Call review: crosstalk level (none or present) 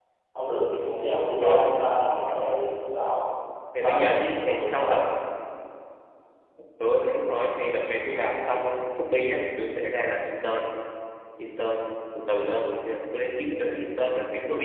present